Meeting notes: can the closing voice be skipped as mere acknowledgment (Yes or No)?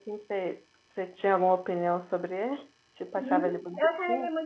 No